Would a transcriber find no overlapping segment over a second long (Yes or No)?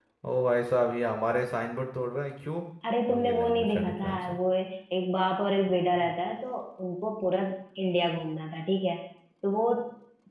No